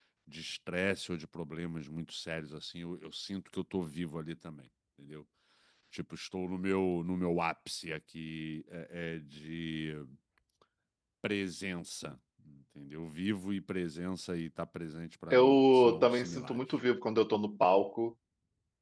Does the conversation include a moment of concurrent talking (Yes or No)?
Yes